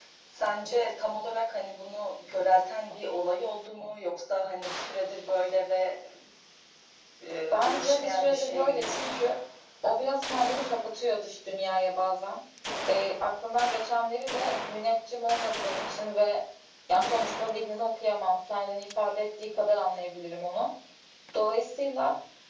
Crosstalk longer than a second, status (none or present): present